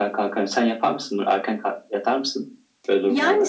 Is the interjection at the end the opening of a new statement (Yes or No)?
Yes